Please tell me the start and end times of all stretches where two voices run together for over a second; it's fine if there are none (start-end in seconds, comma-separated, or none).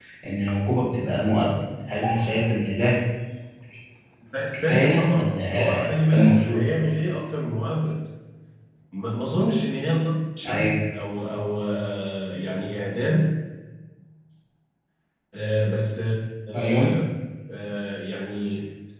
4.5-6.6